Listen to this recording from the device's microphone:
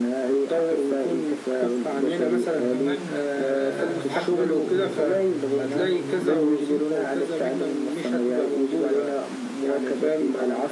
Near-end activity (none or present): present